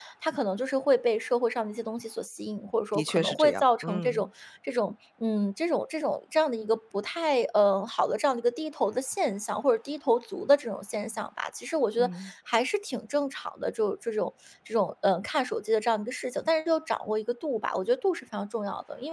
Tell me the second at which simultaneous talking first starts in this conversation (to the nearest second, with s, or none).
3 s